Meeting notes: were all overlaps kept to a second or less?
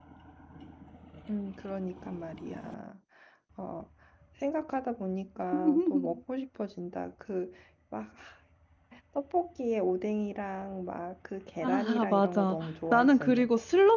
No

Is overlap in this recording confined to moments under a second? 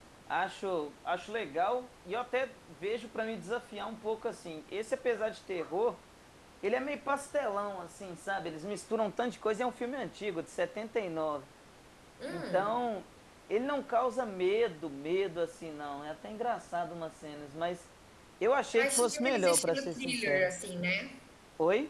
No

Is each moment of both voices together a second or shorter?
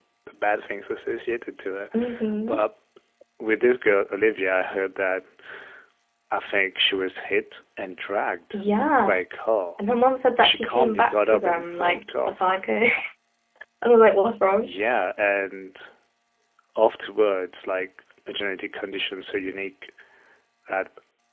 No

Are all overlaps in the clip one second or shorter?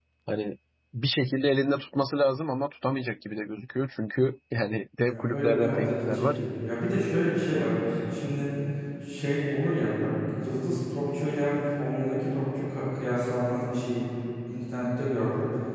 No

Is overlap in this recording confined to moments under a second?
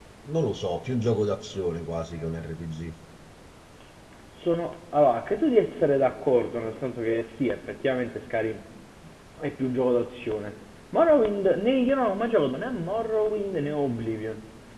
Yes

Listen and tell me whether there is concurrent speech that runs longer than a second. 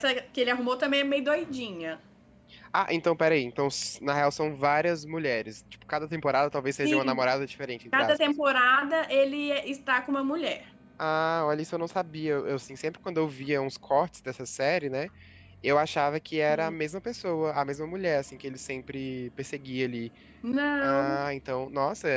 No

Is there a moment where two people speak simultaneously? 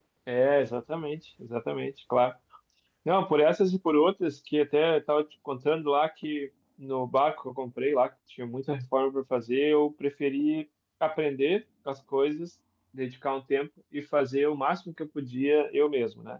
No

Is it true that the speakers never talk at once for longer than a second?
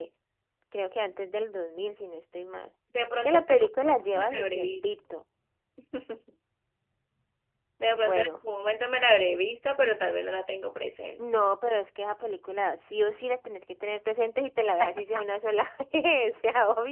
No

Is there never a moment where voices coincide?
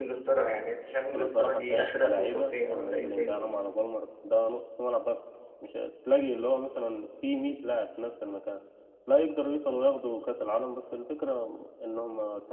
No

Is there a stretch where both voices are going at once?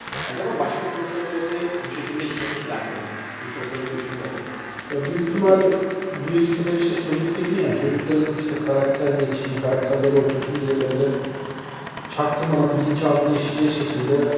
No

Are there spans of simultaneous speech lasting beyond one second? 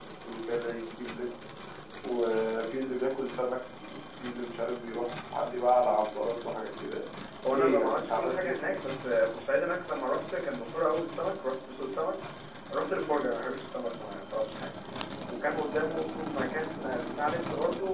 Yes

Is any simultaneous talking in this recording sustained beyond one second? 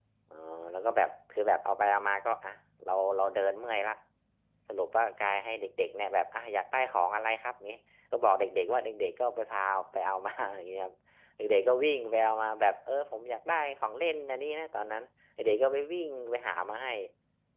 No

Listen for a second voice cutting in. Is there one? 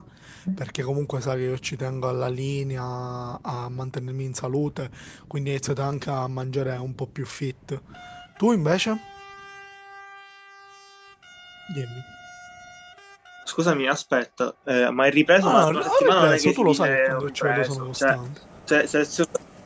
Yes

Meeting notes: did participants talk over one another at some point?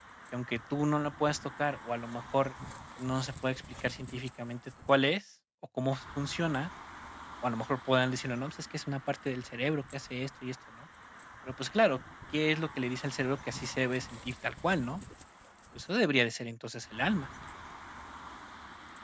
No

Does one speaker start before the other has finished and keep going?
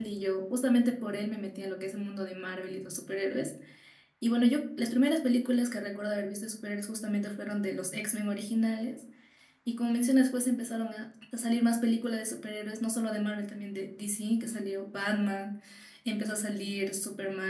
No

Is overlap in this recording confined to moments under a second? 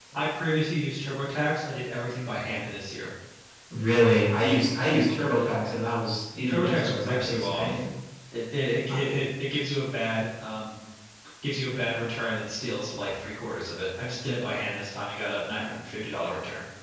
No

